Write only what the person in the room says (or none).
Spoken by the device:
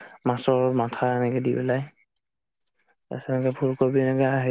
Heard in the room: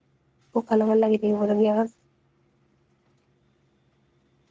ককাৰ লগত লাগি দিব লগীয়া হ'ল।